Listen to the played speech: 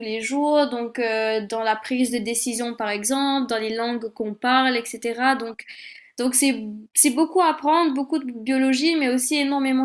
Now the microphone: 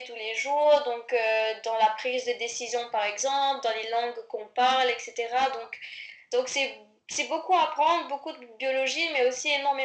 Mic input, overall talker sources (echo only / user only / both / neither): echo only